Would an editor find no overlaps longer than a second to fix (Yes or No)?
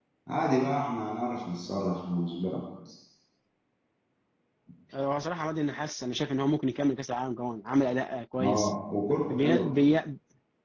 Yes